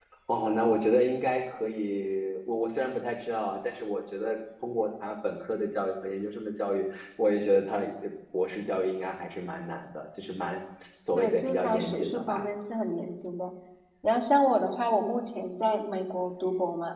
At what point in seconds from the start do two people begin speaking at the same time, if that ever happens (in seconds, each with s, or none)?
11.2 s